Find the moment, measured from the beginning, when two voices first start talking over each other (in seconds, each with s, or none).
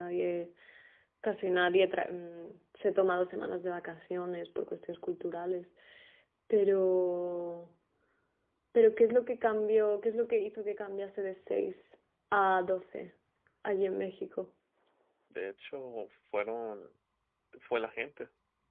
none